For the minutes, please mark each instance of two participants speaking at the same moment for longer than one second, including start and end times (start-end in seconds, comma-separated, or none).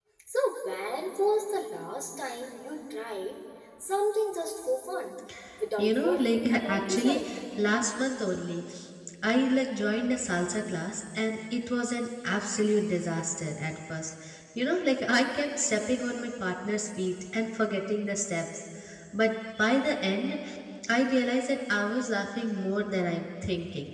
5.8-7.3